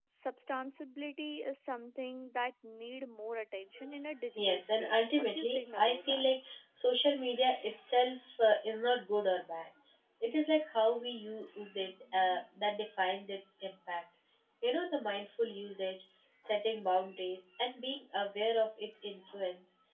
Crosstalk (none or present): present